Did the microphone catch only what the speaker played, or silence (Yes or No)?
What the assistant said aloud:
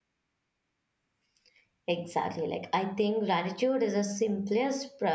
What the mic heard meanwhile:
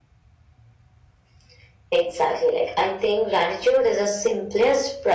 Yes